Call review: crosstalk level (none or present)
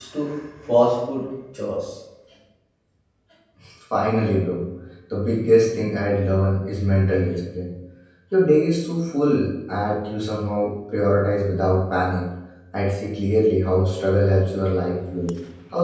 none